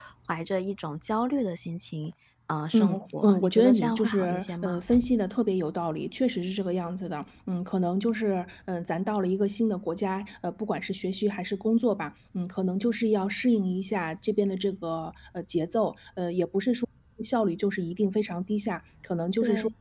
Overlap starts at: 3 s

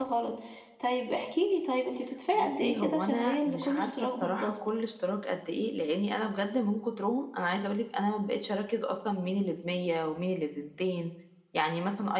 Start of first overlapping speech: 2 s

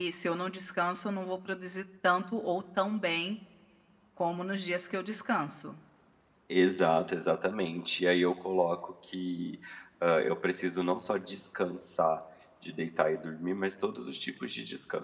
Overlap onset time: none

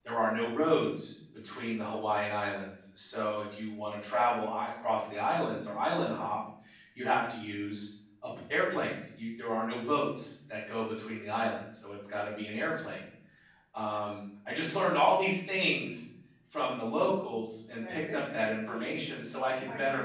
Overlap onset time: 18 s

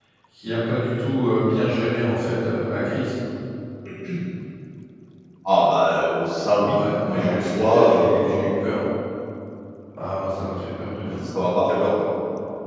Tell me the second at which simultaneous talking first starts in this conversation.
7 s

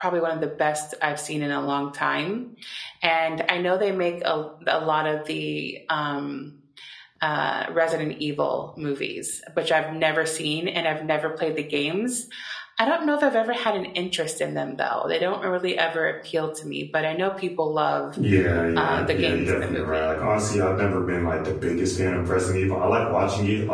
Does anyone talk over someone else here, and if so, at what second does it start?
19 s

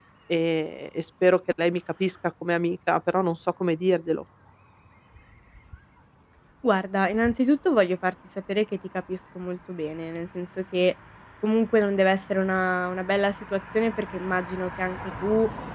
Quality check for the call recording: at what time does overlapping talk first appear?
none

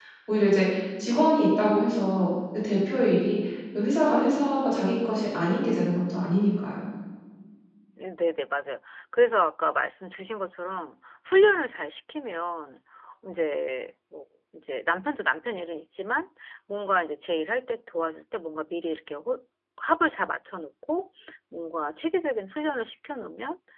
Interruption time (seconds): none

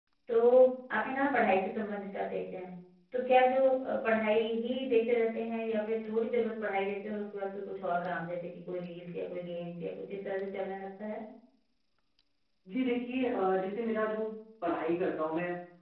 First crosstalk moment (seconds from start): none

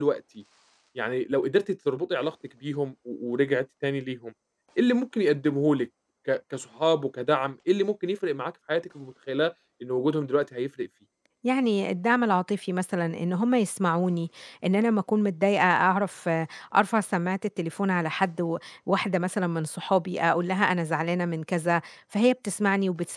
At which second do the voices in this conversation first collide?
none

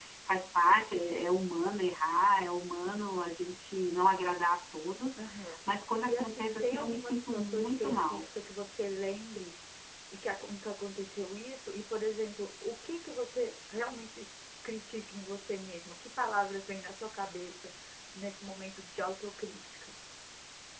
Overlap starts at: 6 s

